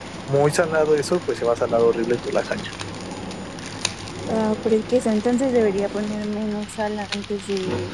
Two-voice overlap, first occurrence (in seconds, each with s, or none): none